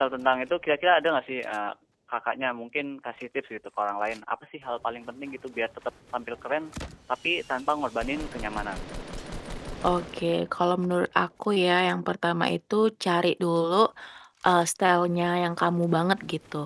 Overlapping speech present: No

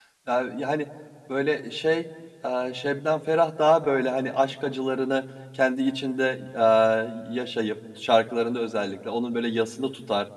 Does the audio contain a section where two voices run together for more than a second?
No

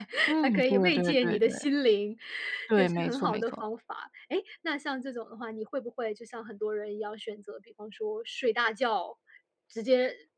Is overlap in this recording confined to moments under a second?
No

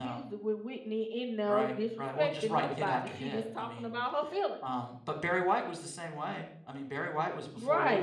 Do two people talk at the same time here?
Yes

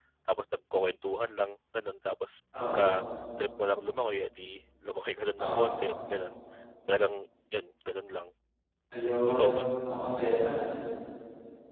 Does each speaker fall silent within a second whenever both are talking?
Yes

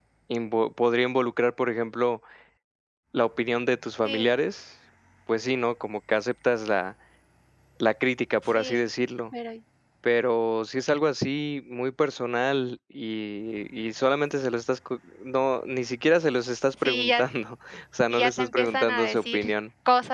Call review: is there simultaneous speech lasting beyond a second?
Yes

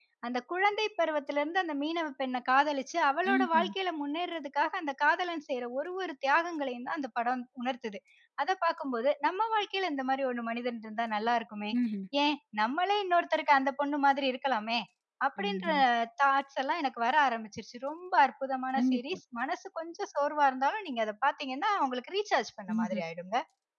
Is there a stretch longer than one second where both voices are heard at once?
No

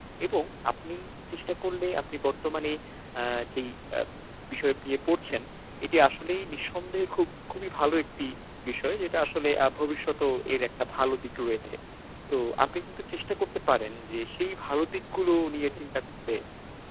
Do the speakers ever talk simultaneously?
No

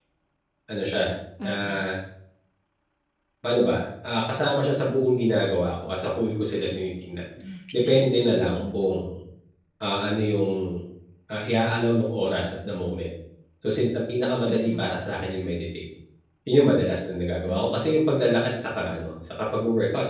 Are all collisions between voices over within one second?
Yes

